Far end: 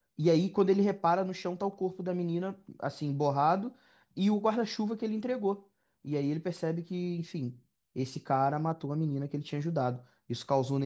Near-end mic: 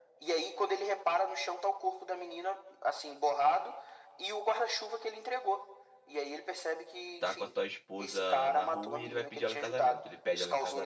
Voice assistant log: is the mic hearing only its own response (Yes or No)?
No